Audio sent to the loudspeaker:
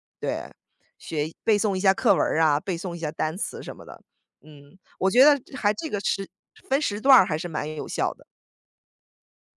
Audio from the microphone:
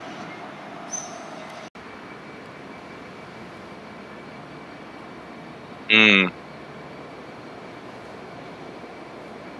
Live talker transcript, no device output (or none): 嗯